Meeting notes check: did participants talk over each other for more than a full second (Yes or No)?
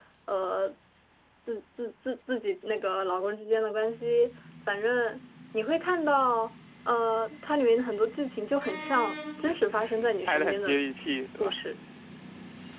Yes